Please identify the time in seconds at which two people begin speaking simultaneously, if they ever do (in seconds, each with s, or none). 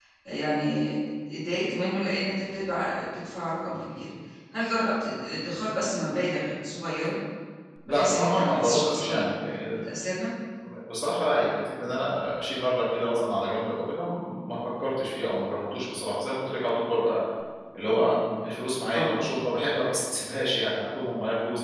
7.9 s